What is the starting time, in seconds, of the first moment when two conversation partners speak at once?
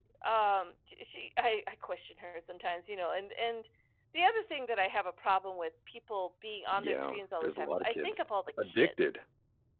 7 s

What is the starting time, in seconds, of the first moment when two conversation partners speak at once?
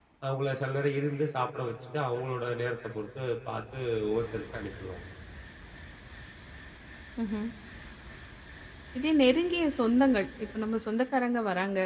none

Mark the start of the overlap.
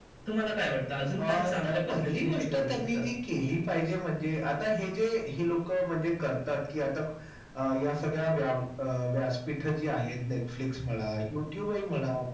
1 s

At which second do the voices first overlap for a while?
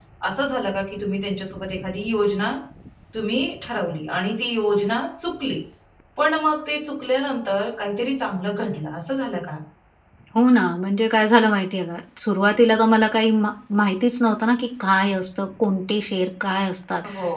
none

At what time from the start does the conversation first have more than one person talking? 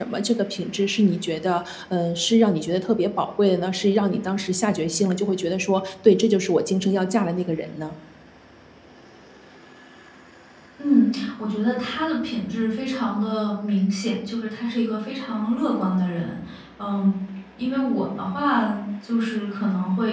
none

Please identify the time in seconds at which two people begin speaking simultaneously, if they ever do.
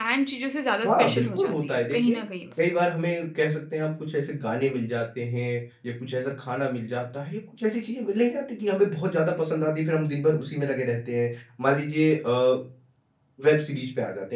1 s

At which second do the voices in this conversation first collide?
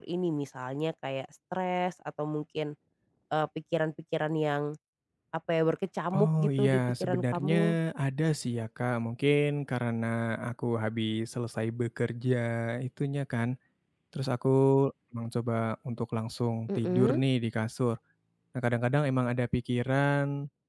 6 s

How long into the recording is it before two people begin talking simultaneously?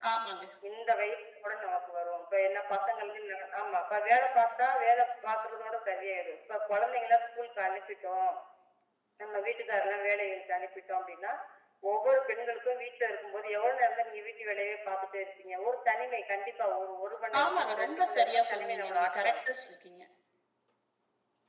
17 s

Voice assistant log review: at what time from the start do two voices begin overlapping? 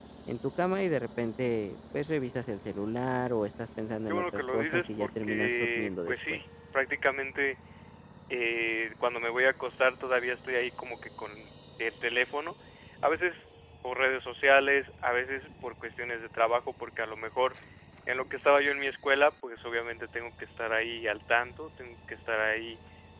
4 s

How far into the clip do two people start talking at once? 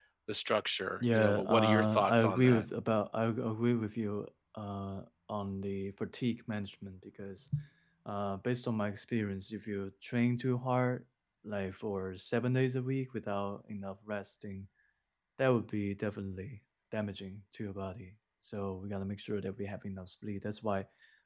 1 s

